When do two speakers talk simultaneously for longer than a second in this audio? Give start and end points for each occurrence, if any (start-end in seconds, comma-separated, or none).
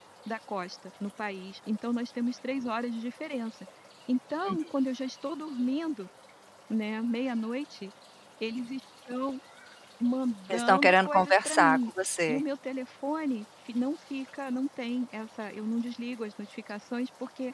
10.5-11.9